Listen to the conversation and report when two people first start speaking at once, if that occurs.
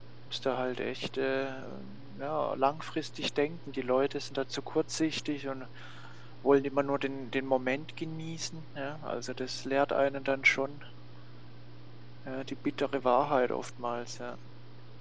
none

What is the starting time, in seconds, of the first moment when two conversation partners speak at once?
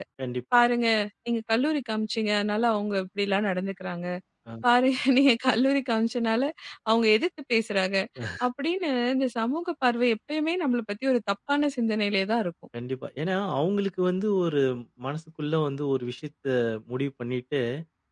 none

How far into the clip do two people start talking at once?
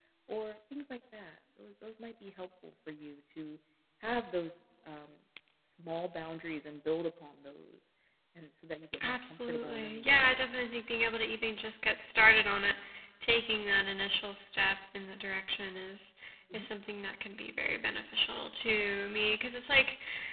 9 s

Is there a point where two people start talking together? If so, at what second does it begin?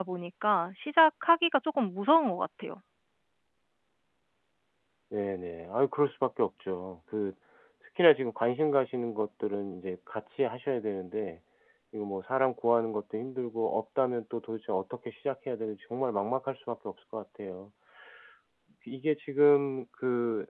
none

